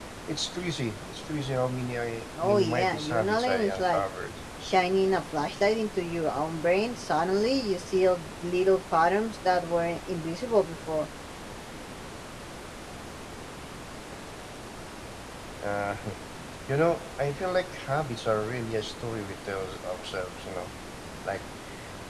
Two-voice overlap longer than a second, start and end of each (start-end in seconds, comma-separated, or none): 2.4-4.0